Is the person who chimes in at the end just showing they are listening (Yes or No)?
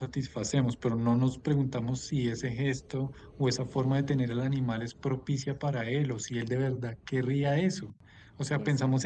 Yes